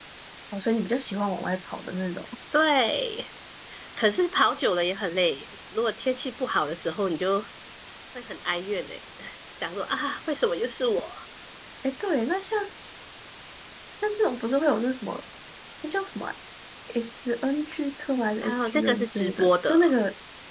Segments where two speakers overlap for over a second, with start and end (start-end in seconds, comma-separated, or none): 18.4-19.8